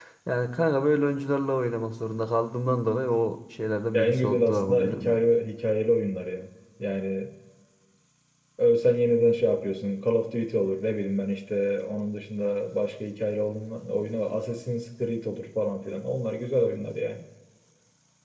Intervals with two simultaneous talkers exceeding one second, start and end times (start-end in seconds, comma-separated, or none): 3.9-5.2